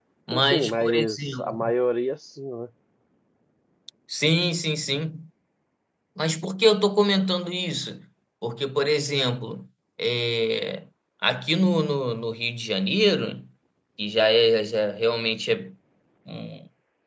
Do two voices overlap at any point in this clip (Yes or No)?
Yes